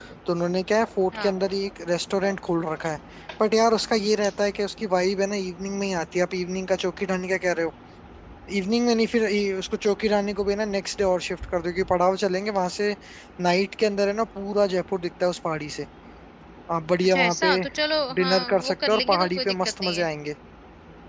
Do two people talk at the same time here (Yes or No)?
Yes